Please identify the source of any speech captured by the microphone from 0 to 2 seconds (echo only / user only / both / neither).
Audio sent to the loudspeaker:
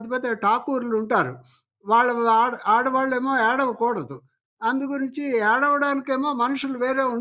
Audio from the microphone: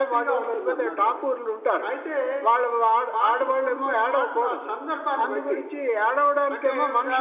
both